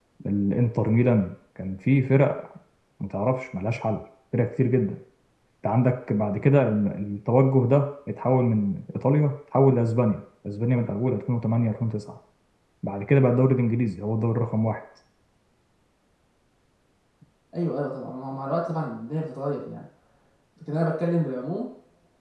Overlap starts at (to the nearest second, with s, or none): none